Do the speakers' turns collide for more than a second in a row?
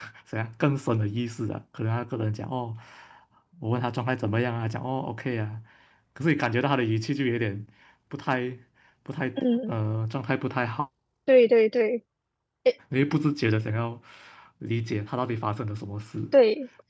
No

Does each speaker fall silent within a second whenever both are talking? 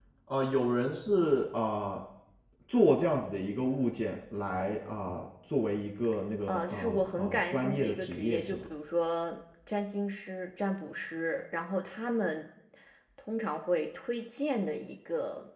No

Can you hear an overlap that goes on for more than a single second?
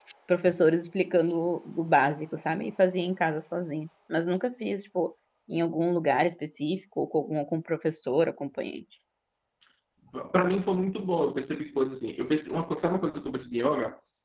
No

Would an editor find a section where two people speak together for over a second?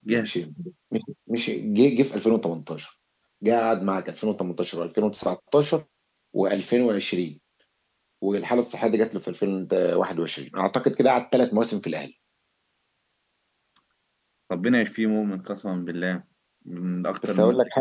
No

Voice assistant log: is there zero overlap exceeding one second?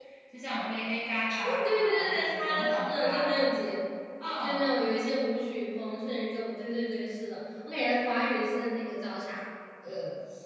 No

